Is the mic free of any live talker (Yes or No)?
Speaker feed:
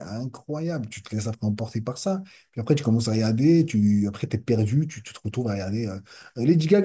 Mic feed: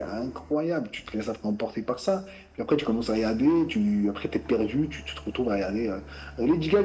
Yes